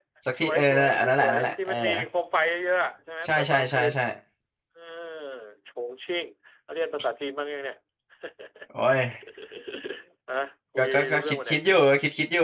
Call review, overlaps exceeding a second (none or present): present